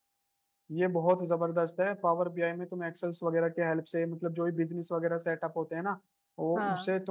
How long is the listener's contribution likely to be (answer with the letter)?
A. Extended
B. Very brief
B